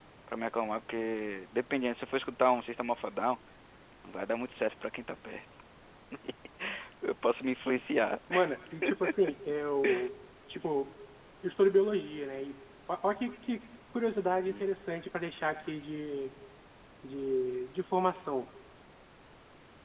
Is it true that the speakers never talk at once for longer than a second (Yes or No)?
Yes